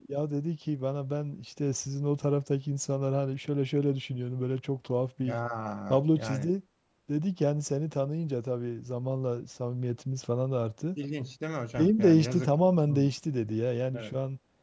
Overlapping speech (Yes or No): Yes